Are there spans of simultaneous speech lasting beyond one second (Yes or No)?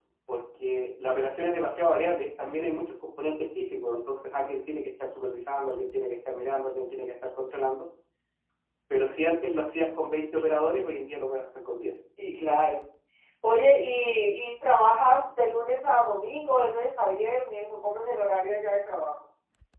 No